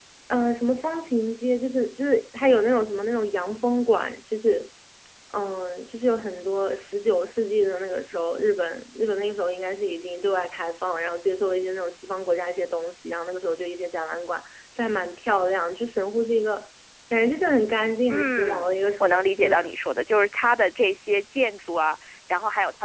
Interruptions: present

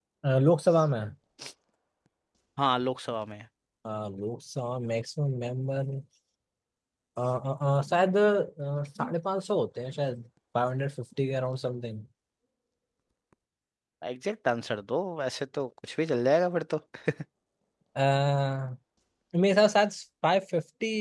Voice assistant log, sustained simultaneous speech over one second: none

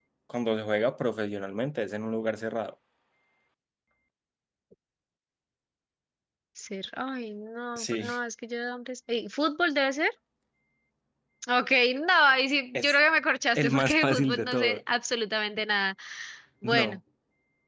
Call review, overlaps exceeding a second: present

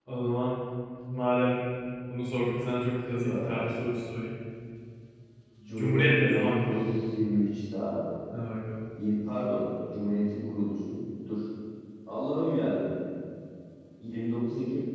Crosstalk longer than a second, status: present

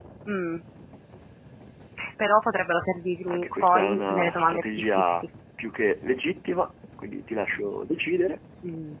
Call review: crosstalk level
present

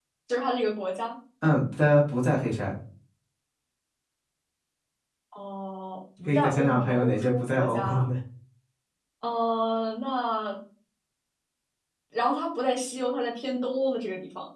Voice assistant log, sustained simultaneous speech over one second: present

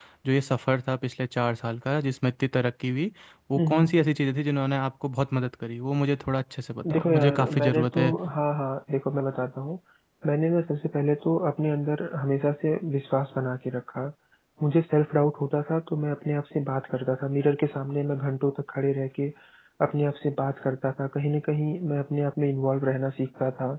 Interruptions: present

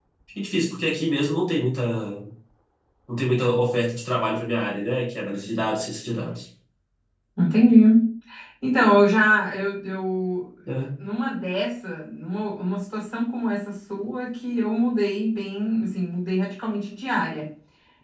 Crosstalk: none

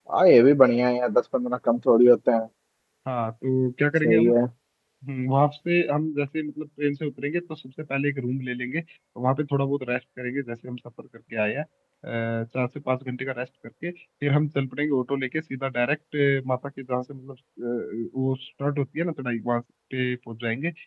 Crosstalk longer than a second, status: none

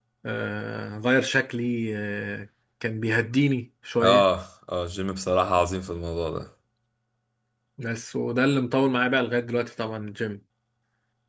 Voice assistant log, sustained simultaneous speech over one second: none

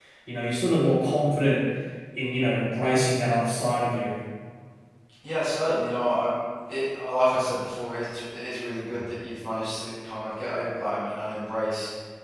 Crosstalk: none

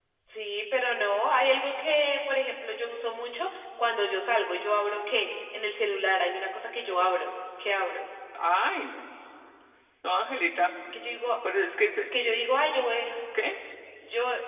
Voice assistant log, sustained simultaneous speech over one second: none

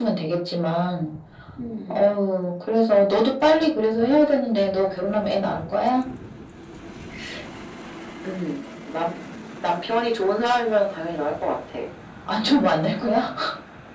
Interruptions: none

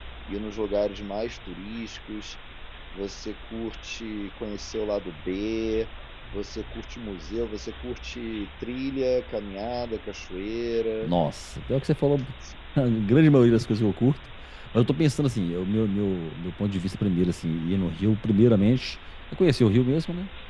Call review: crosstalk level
none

